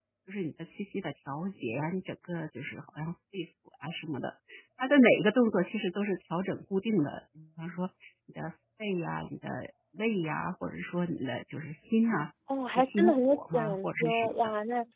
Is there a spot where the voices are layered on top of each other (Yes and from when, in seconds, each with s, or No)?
Yes, from 12.7 s